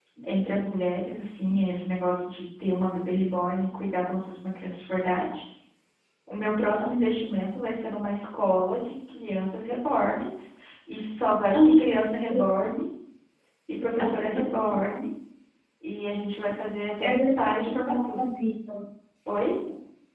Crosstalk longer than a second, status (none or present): present